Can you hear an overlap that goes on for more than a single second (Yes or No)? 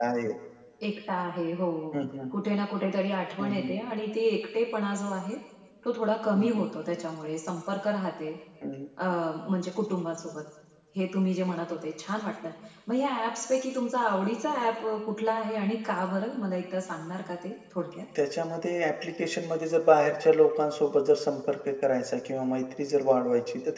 No